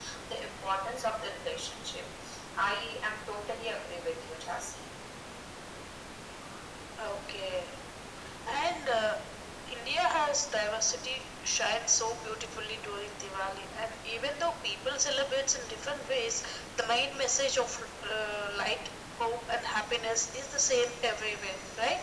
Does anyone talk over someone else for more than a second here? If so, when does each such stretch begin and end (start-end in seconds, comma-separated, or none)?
none